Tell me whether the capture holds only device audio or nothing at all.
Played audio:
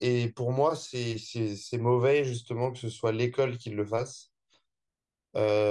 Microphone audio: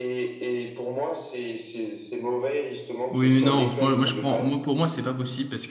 No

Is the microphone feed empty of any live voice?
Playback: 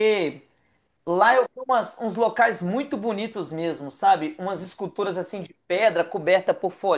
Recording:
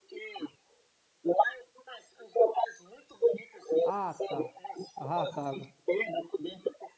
No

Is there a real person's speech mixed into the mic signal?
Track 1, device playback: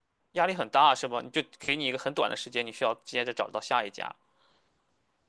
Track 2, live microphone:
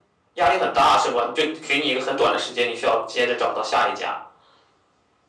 No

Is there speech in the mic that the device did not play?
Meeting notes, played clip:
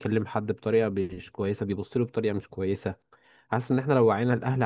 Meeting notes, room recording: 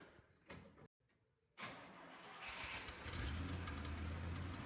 No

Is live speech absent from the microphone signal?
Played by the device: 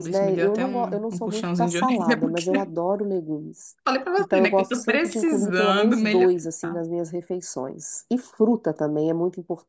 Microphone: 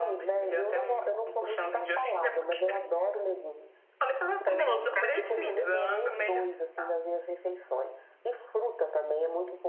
No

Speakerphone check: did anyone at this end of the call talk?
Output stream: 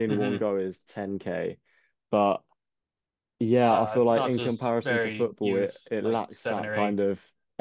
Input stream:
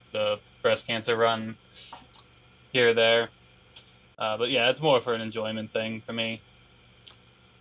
Yes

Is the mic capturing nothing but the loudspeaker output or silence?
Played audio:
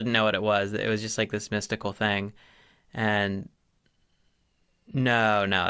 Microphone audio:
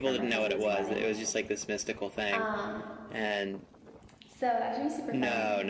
No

